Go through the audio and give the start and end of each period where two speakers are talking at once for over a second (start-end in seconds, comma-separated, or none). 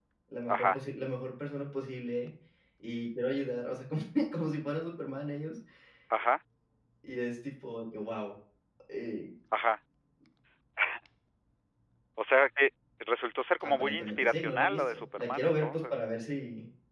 13.6-15.9